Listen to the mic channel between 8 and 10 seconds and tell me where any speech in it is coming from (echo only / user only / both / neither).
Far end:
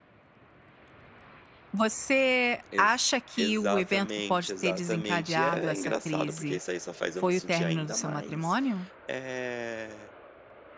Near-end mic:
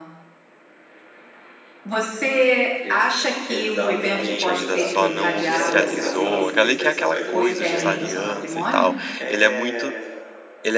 both